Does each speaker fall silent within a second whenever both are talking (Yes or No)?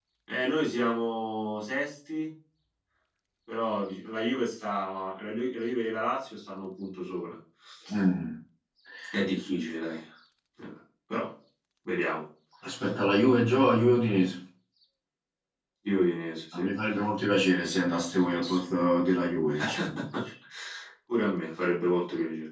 Yes